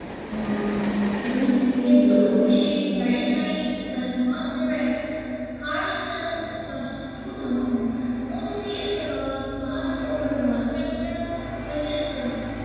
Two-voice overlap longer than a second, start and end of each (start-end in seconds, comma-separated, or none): 1.8-3.1